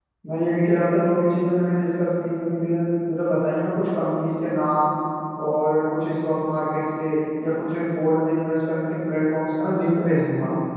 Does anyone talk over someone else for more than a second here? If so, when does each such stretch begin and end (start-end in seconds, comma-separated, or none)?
none